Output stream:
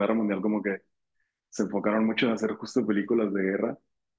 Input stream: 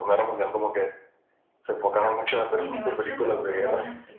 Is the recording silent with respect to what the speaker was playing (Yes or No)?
No